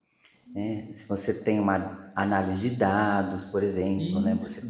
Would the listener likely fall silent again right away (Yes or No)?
Yes